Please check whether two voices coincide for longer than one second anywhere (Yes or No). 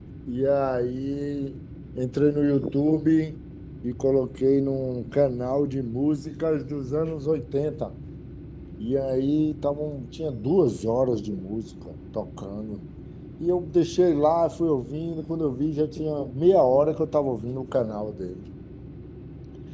No